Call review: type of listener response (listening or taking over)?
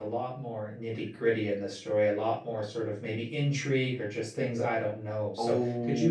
taking over